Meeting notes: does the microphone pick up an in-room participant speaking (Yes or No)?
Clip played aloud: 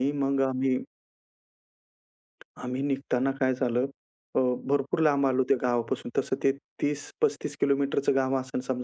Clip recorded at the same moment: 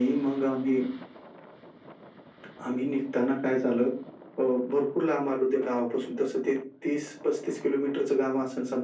No